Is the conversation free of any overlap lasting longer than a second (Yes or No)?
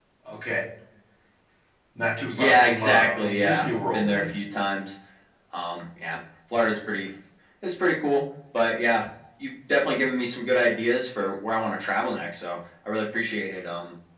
No